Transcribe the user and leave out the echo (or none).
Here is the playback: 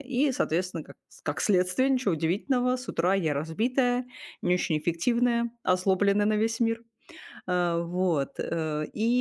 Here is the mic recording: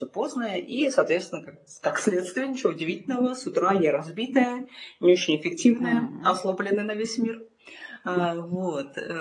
М,